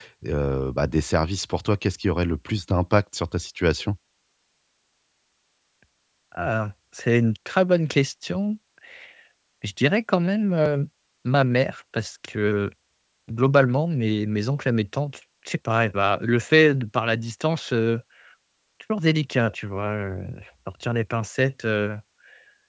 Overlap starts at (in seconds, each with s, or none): none